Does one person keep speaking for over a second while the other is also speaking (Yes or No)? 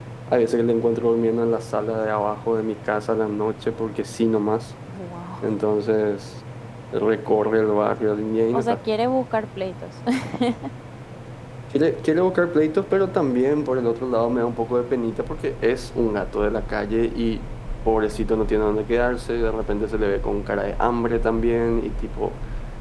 No